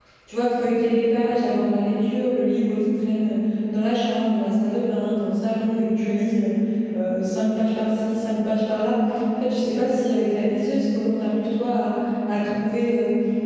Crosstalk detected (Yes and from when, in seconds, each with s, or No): No